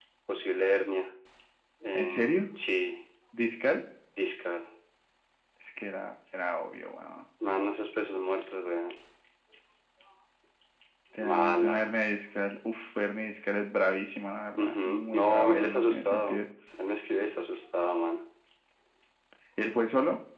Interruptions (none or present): present